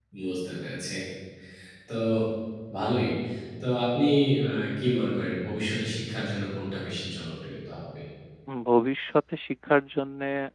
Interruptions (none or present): none